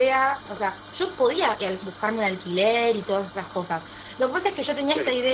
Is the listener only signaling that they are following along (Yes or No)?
Yes